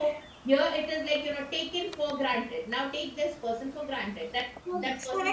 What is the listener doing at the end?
taking over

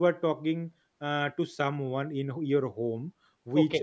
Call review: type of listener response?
listening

